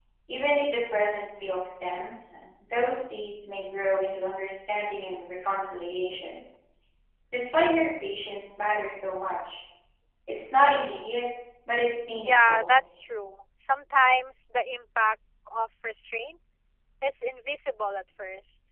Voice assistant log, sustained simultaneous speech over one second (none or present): none